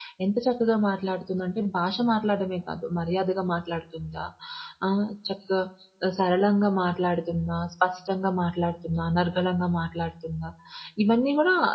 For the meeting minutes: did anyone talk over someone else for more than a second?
No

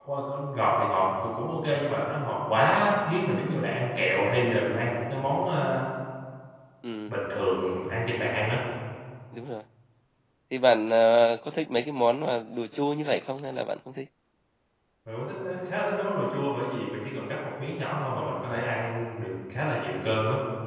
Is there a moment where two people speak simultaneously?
No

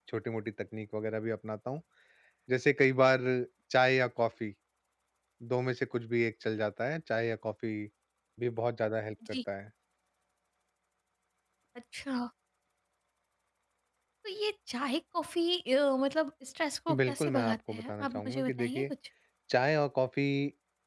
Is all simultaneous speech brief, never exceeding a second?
No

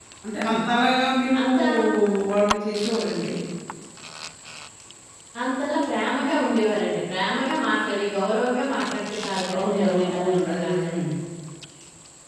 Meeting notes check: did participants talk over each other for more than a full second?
Yes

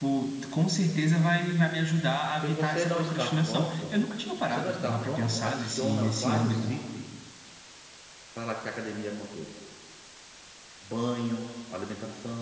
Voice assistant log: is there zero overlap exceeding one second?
No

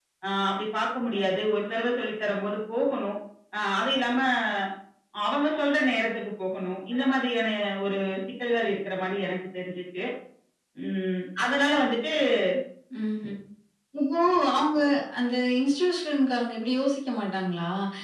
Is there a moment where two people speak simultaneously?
No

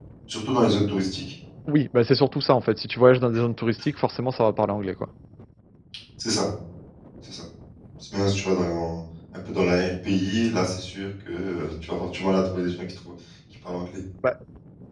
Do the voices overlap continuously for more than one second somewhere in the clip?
No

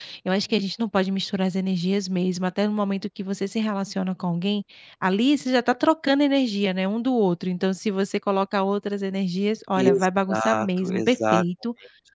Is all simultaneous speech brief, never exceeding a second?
No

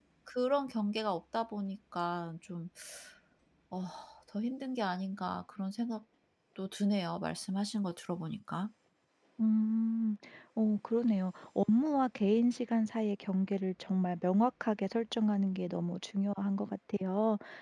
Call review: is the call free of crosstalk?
Yes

